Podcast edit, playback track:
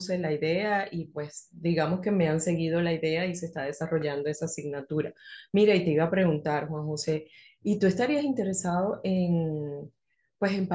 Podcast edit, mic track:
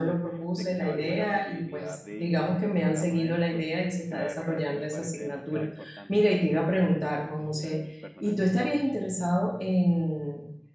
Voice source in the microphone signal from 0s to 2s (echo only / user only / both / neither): both